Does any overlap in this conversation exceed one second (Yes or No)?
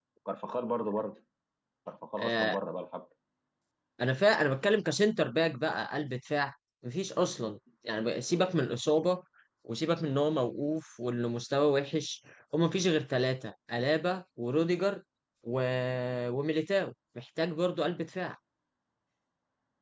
No